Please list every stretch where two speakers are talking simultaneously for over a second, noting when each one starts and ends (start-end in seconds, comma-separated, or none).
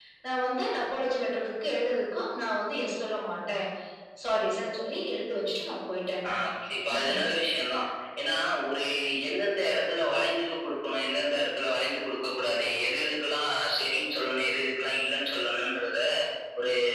none